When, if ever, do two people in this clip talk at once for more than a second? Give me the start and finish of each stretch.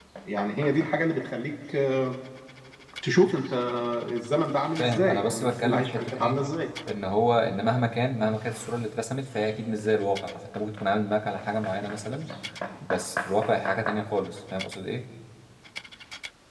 4.8-6.4

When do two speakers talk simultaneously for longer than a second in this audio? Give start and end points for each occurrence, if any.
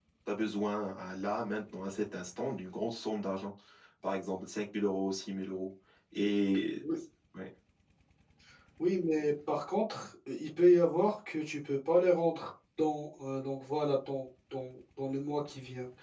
none

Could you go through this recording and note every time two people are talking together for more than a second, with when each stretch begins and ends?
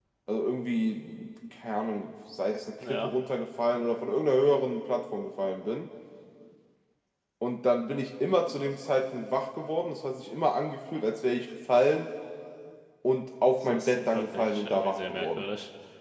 13.7-15.4

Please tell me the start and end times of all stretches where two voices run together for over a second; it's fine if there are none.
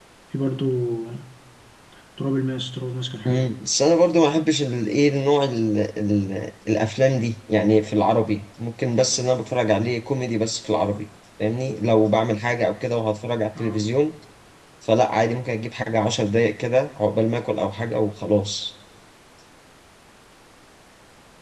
none

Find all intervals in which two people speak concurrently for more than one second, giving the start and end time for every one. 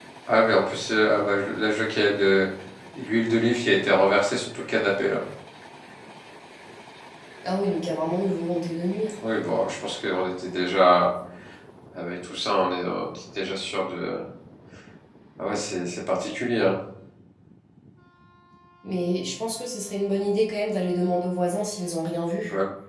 none

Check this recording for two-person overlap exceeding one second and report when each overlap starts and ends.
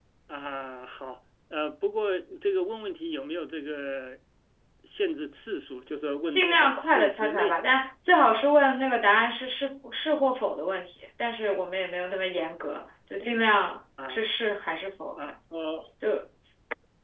6.3-7.6

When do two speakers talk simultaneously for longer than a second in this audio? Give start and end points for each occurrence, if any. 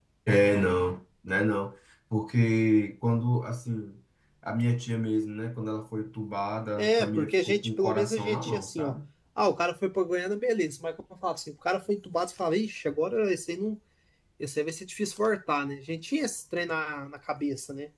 6.8-9.0

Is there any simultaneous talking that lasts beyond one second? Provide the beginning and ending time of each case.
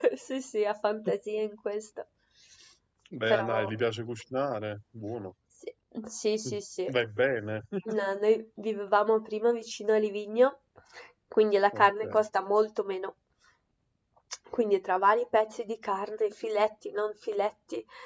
none

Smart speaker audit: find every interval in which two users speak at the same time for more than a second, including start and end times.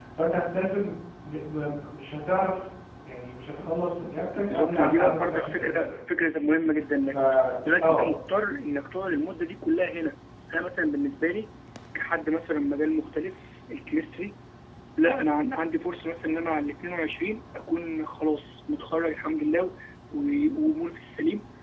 4.5-5.9

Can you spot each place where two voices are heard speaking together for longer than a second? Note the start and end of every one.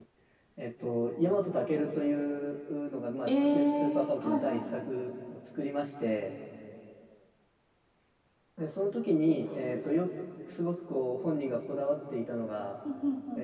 3.3-4.6

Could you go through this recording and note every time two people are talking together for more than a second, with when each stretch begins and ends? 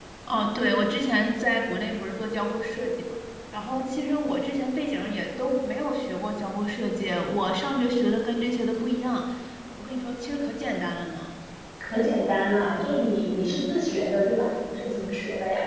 none

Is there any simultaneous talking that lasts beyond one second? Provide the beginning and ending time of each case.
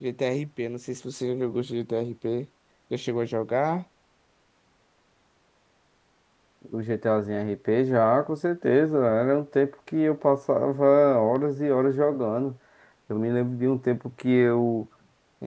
none

